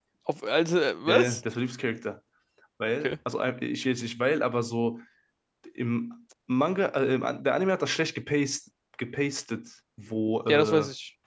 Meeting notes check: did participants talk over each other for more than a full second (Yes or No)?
No